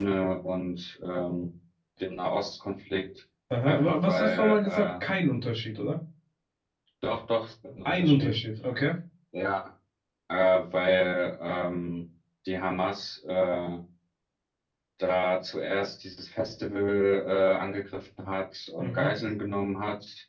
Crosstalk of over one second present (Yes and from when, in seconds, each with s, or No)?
Yes, from 3.6 s